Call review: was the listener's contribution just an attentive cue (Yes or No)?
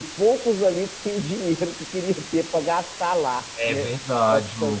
No